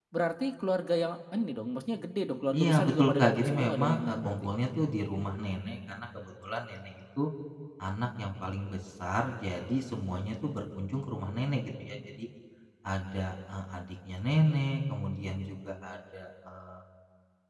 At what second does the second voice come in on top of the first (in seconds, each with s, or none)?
2.5 s